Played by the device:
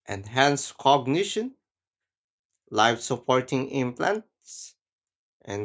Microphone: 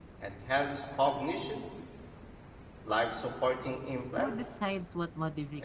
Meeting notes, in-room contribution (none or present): present